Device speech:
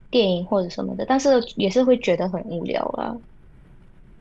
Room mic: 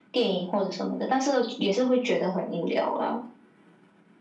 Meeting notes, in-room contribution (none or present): none